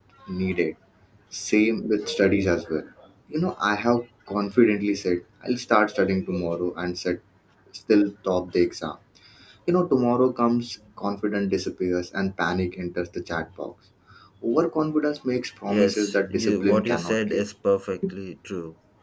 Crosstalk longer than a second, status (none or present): present